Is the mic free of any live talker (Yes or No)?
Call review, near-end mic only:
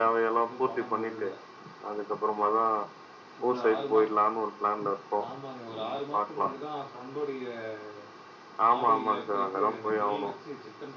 No